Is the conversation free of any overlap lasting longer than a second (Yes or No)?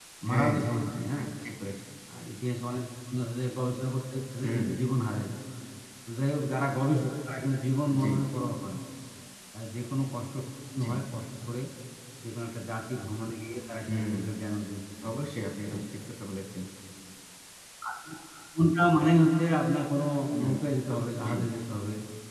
Yes